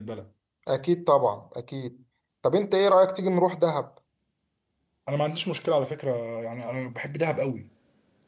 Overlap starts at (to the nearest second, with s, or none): none